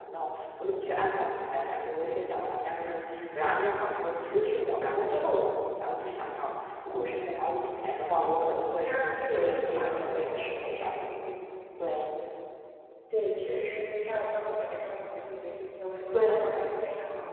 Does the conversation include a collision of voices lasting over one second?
Yes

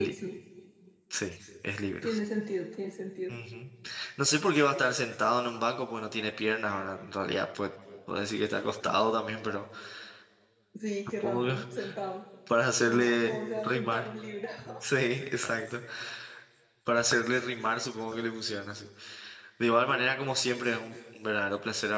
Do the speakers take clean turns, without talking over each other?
No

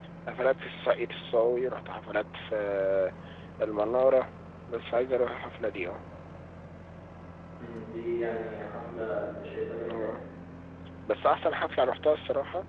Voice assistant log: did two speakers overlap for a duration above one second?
No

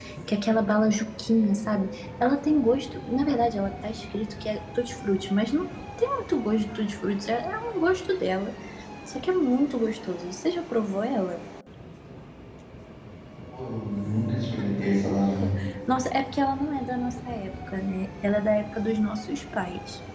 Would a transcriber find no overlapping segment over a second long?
Yes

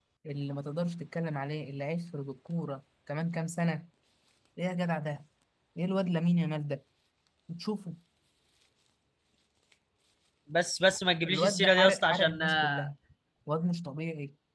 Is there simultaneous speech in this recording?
Yes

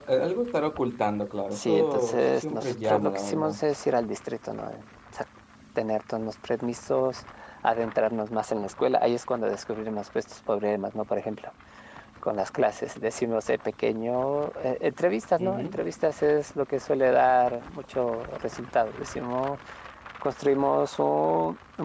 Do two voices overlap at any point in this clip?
Yes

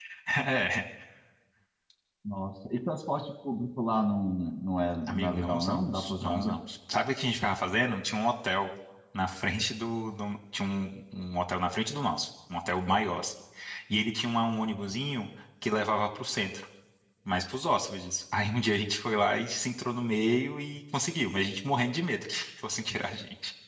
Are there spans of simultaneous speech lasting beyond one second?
Yes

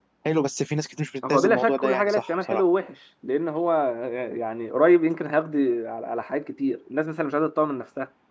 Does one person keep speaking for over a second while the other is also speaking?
Yes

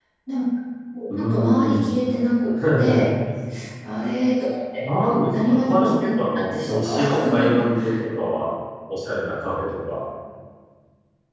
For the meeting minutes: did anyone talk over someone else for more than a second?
Yes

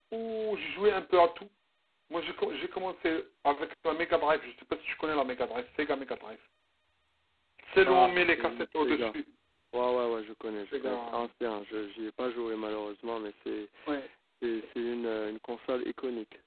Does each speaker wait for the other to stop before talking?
No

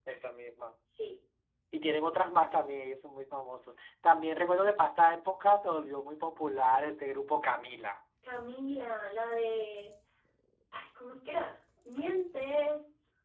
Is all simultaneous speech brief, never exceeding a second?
Yes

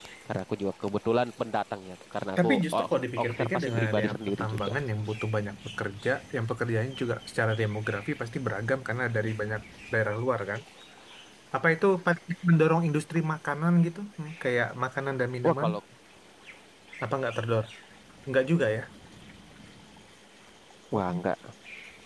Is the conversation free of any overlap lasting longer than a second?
No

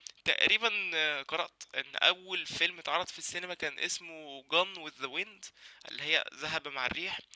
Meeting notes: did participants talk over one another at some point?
No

